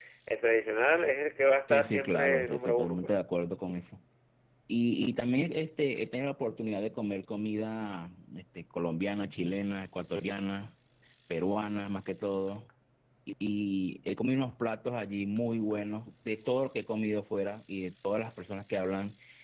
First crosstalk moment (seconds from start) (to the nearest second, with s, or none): 2 s